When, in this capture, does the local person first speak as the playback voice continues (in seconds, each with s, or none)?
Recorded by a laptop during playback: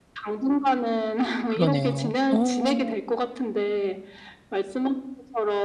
1.4 s